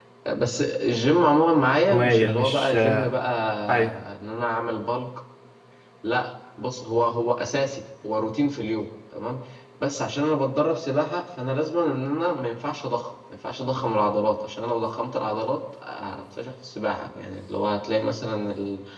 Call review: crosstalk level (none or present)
present